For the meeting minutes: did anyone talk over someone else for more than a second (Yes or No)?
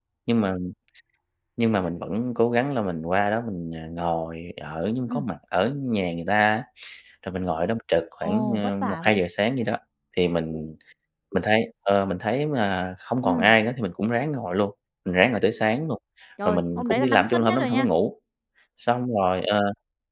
Yes